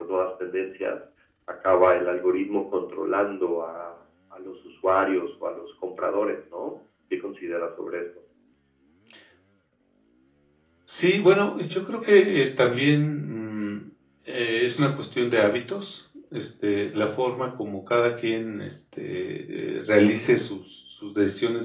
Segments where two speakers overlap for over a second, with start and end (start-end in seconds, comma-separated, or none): none